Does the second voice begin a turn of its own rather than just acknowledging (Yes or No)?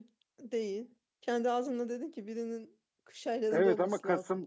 Yes